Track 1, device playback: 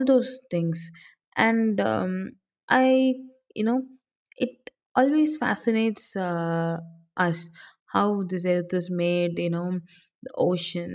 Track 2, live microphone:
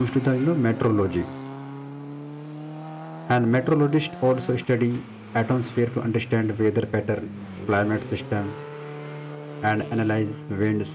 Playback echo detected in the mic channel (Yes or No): No